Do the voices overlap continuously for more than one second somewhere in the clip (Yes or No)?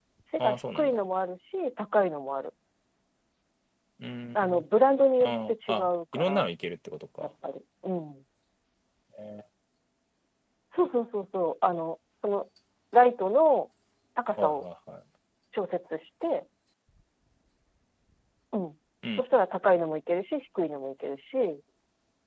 Yes